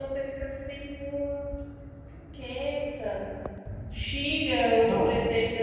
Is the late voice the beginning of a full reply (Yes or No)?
No